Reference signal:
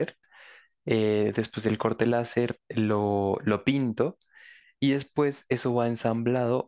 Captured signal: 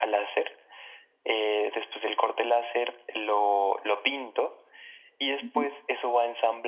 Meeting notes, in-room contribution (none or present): present